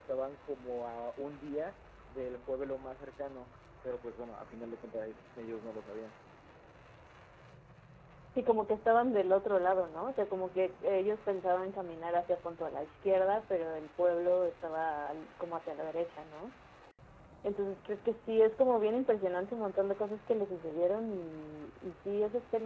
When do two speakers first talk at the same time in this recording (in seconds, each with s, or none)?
none